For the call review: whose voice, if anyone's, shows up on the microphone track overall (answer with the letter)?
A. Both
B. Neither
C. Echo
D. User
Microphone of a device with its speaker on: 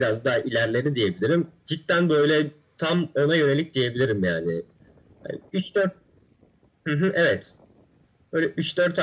C